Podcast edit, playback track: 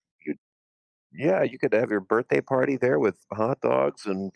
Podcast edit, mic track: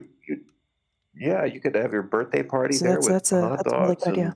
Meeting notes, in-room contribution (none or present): present